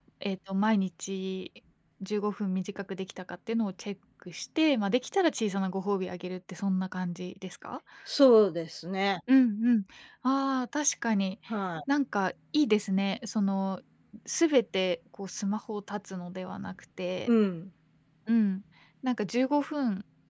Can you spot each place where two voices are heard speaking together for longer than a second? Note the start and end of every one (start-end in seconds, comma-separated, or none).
none